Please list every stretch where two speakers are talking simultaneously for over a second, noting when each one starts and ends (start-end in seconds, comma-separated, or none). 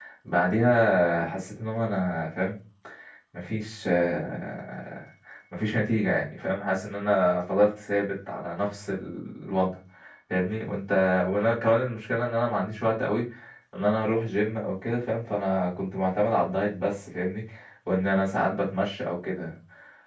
none